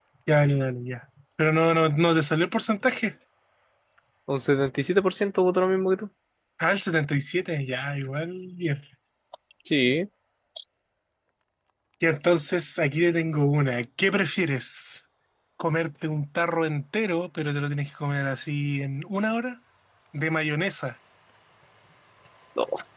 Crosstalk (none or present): none